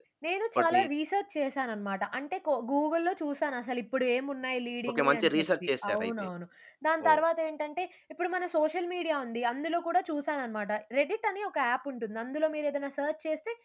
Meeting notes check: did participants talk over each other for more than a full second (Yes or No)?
Yes